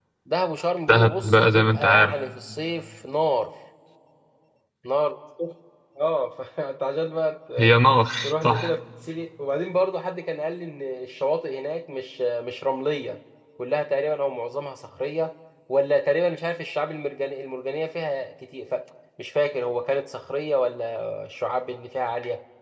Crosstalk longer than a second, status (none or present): present